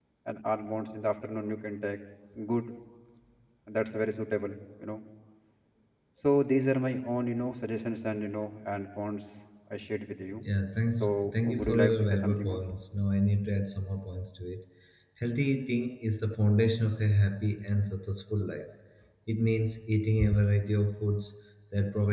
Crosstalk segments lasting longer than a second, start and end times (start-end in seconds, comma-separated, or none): 11.0-12.6